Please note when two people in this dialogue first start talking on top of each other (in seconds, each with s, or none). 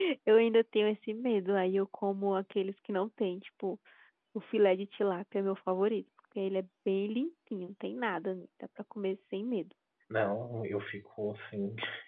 none